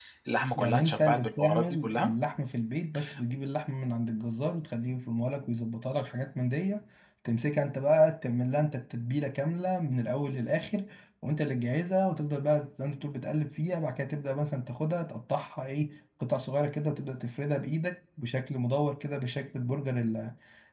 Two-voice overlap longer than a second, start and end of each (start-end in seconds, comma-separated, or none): 0.6-2.1